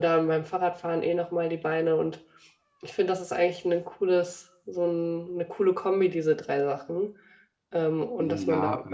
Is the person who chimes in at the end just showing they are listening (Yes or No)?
No